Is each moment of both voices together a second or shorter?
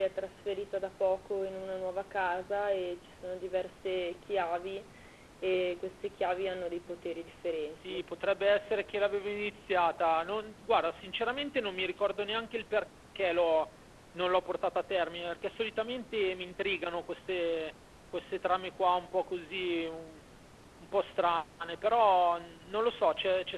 Yes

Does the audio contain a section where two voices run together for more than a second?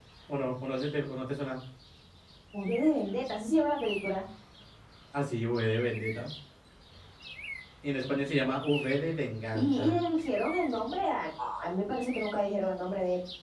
No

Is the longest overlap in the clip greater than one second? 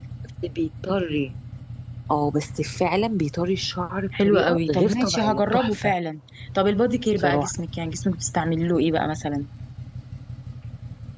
Yes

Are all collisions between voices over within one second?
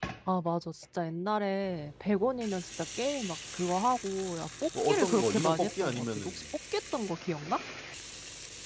No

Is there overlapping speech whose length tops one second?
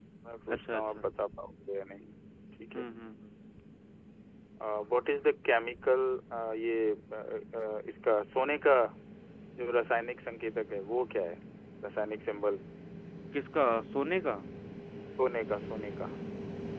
No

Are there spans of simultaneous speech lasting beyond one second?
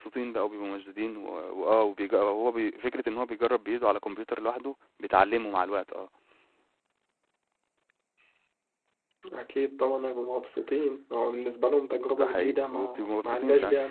Yes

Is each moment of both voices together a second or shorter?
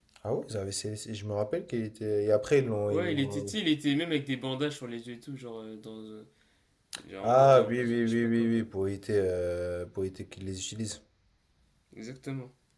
No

